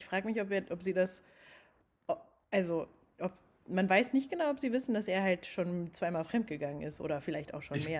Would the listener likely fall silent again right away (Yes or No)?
No